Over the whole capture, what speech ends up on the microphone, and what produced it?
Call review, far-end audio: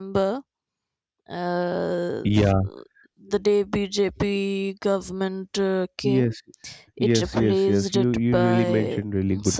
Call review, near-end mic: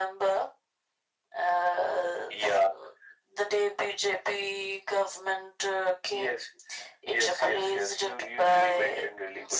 echo only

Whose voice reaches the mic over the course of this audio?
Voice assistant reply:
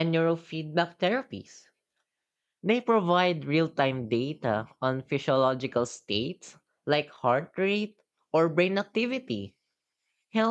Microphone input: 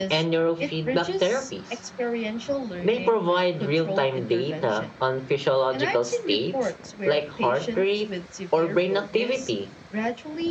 both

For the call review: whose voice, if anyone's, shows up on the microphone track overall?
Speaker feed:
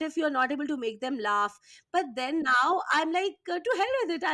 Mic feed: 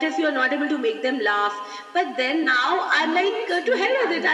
both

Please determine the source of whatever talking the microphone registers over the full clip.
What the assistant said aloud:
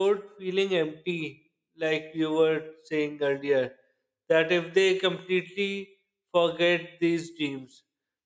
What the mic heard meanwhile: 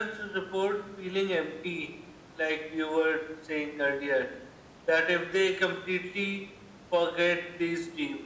echo only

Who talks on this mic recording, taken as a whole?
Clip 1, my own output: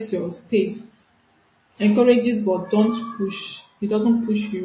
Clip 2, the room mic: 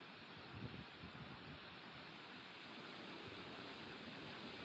neither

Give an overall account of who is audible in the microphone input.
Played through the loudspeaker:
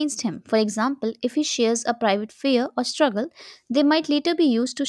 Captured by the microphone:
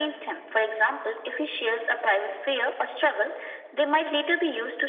echo only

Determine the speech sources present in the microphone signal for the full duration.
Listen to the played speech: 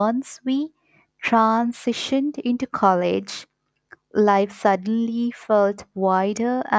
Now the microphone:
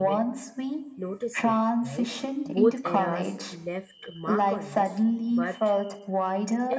both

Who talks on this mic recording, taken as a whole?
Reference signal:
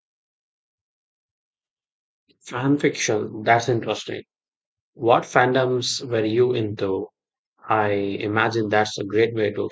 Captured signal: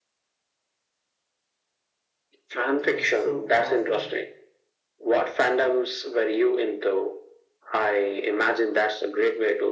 both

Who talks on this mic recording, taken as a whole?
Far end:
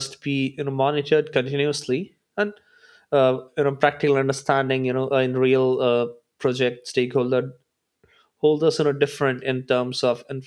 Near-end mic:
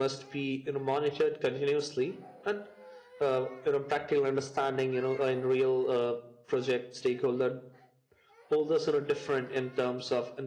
echo only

